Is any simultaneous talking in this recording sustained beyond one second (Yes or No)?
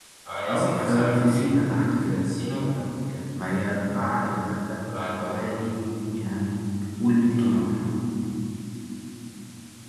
Yes